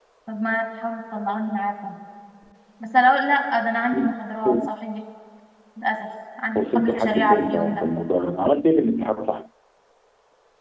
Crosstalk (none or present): present